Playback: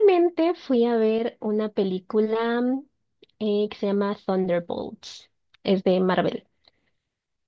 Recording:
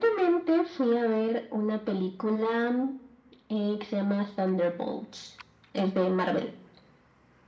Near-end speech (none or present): none